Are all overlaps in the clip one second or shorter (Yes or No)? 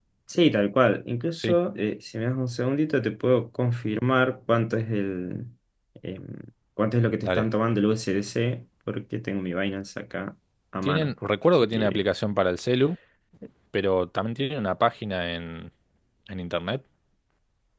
Yes